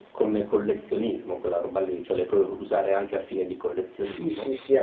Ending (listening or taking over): taking over